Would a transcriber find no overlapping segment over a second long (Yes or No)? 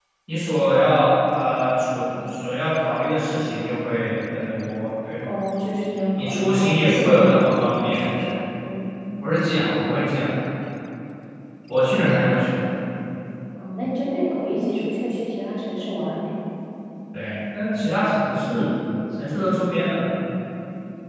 No